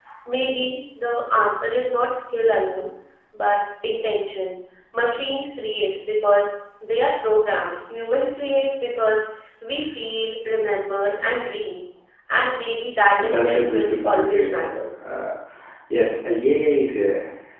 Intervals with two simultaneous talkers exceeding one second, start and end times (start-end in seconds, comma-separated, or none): 13.2-14.6